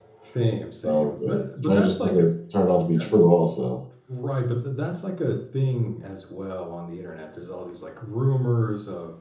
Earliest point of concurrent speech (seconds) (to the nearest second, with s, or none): 1 s